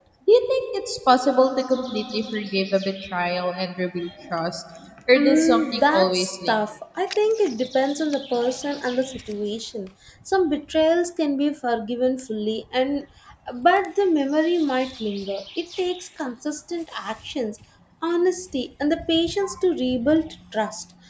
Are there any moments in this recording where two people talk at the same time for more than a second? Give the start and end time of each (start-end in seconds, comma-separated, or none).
5.1-6.6